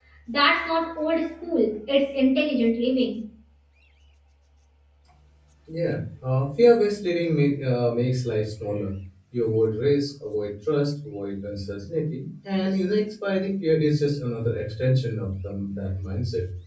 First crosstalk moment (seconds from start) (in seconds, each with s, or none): none